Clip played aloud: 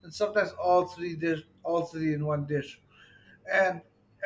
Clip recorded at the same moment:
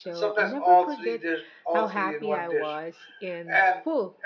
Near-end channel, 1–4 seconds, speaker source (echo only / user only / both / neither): both